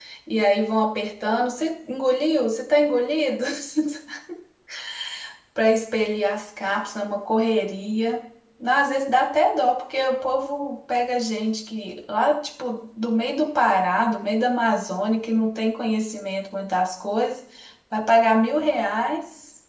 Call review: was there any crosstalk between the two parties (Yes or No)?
No